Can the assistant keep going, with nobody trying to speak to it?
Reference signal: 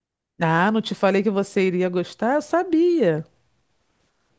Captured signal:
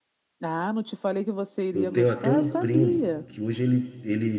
No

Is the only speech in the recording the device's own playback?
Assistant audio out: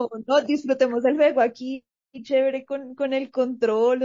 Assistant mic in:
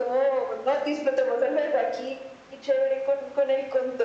Yes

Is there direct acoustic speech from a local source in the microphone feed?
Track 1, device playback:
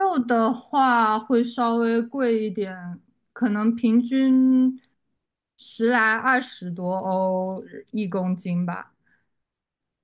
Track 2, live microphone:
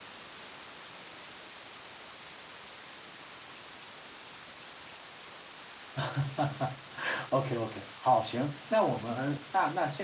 Yes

